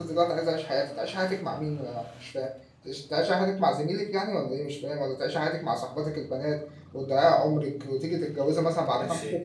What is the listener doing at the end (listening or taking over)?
taking over